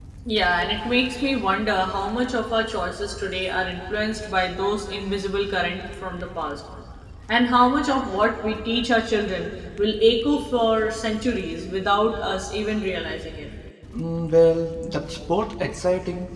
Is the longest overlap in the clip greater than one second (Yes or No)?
No